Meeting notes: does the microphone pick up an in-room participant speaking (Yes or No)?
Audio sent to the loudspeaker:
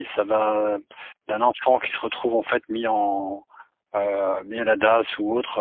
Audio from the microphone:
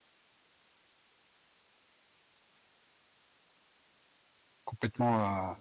Yes